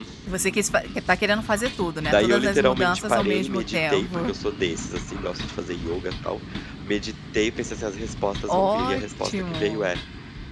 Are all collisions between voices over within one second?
No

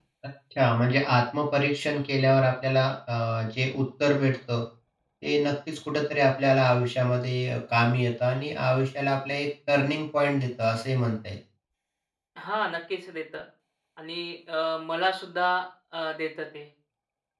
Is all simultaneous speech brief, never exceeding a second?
Yes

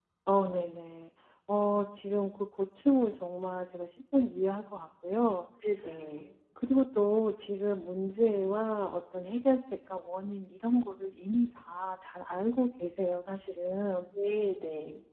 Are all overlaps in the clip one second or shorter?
Yes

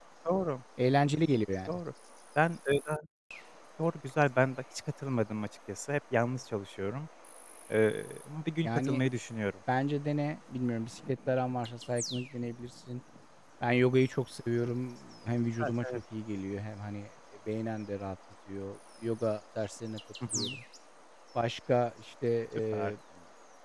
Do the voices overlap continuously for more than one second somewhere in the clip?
No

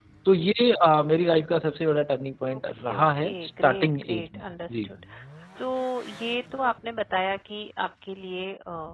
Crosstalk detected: Yes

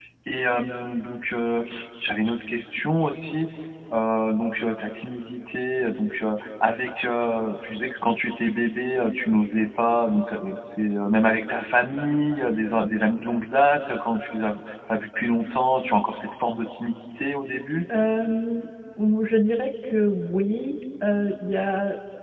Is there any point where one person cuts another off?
No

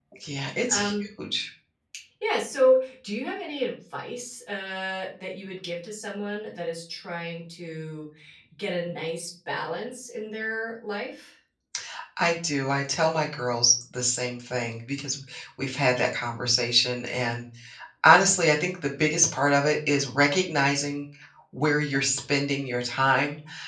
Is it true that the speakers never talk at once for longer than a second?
Yes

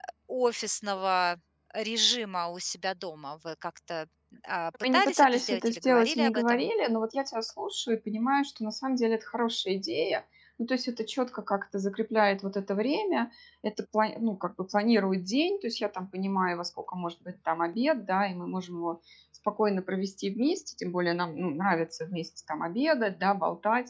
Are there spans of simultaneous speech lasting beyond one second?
Yes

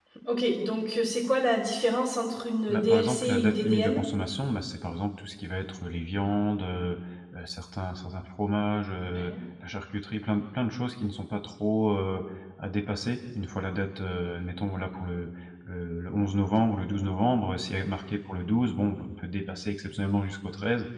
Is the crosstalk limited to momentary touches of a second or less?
No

